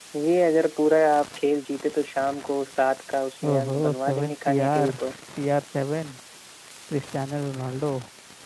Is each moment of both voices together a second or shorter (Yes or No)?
No